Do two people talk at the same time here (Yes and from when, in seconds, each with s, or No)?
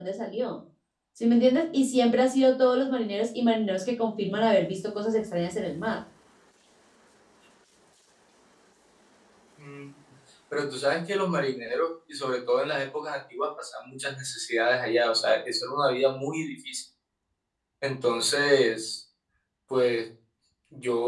No